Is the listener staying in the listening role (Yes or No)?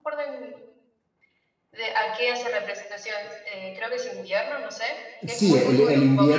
No